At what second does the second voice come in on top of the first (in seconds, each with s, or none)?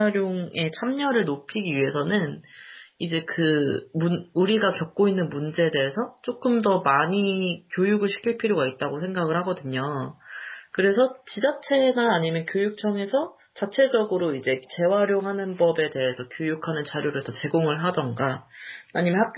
none